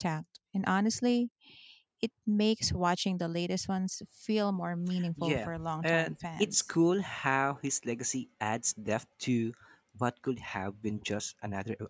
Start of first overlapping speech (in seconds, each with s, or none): 5.2 s